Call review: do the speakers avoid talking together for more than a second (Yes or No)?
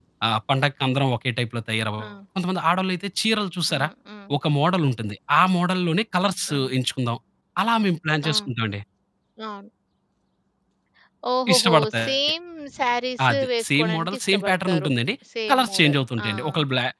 No